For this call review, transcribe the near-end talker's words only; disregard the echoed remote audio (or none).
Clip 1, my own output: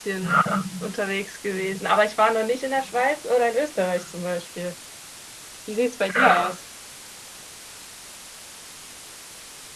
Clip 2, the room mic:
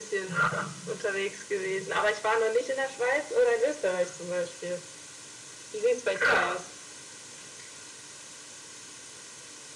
none